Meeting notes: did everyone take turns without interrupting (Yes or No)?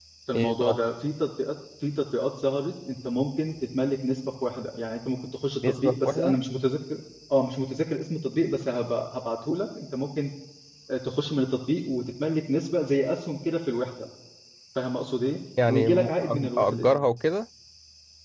No